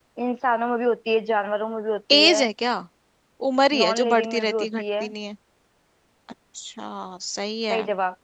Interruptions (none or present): present